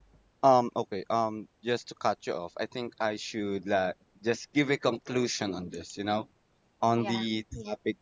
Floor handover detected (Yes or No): No